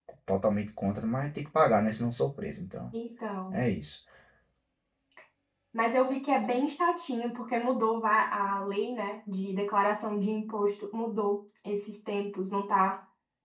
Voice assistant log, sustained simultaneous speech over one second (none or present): none